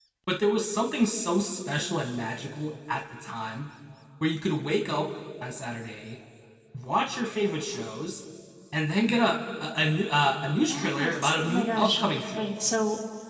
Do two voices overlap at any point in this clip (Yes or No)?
Yes